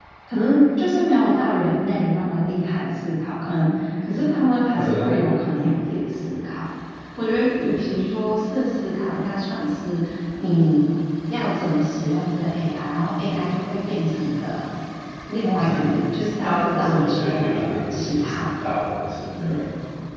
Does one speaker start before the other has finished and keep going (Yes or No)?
Yes